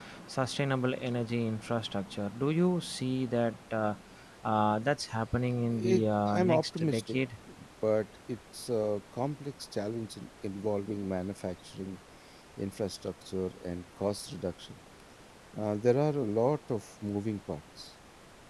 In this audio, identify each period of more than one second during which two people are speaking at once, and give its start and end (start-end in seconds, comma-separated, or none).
5.7-7.2